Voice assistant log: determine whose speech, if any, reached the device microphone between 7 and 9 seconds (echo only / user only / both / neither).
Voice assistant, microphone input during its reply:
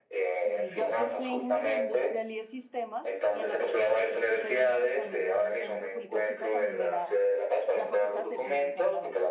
both